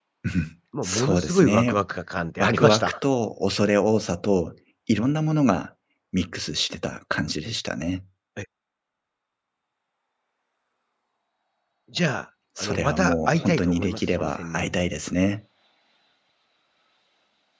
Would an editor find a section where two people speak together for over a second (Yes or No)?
Yes